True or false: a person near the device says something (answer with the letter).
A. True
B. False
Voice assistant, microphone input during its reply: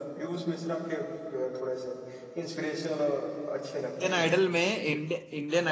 A